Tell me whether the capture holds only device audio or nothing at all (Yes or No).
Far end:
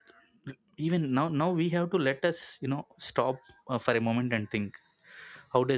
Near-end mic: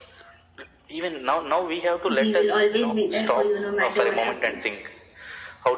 No